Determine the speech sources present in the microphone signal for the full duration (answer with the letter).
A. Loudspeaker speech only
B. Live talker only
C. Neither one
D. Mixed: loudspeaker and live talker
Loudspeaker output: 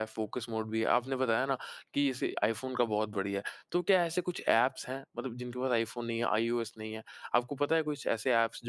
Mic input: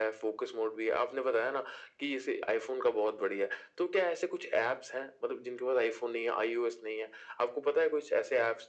A